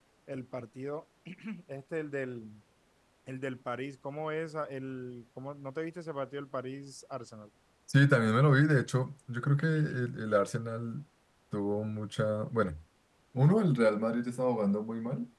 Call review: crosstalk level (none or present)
none